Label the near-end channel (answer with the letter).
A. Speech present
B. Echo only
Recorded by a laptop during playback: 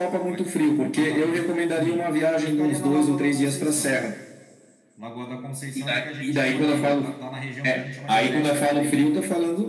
A